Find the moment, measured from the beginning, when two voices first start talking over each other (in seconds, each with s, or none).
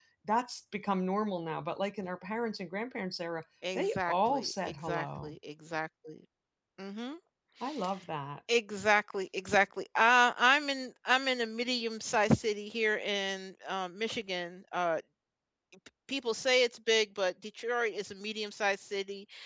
3.6 s